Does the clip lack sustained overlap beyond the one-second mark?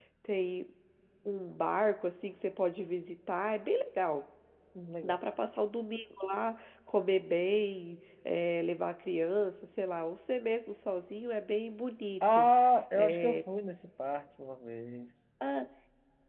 Yes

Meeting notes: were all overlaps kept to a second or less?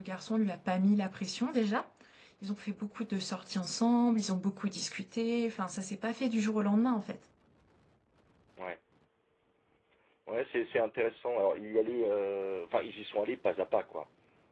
Yes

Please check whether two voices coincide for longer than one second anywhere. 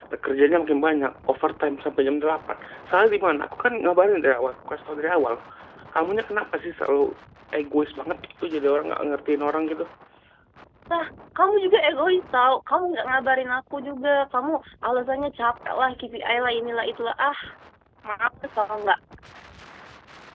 No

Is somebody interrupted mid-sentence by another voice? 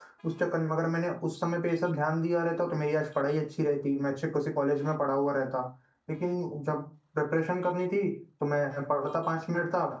No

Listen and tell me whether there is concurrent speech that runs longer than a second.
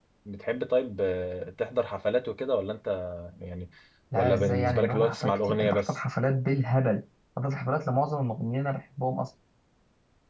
Yes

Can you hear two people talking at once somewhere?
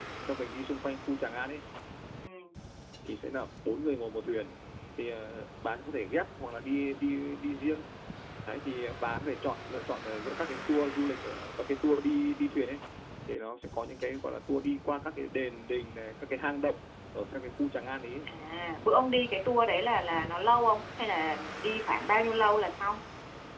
No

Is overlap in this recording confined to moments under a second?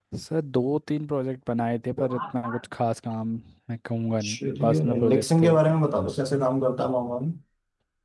No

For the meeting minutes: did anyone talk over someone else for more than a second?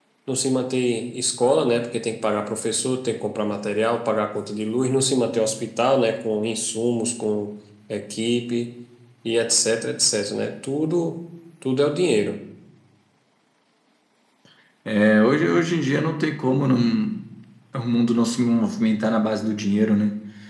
No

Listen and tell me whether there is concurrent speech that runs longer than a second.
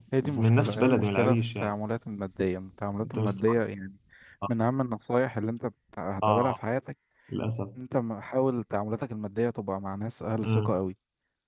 Yes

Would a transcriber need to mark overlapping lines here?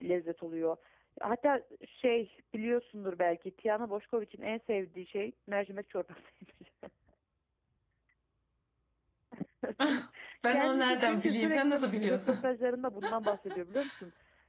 Yes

